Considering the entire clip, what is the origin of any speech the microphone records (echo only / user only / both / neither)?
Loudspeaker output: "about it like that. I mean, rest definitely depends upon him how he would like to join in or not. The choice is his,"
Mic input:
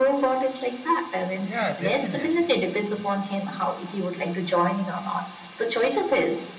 both